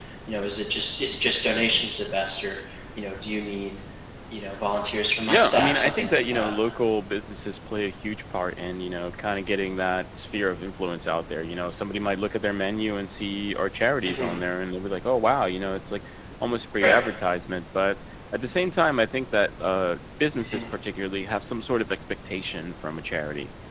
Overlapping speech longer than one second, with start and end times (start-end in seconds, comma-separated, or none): 5.3-6.5